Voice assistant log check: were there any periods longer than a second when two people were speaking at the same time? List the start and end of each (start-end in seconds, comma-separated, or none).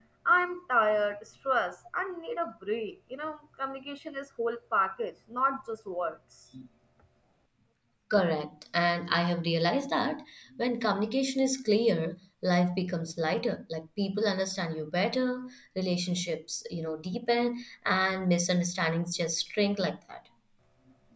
none